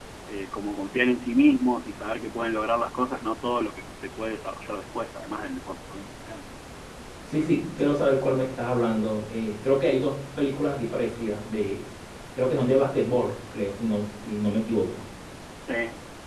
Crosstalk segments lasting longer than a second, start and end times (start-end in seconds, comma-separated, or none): none